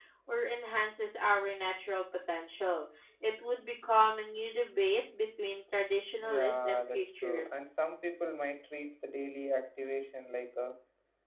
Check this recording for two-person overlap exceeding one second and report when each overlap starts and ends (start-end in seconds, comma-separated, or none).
6.2-7.7